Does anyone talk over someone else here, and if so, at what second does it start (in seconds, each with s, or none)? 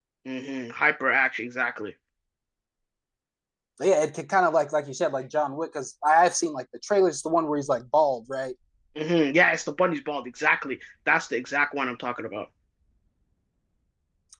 none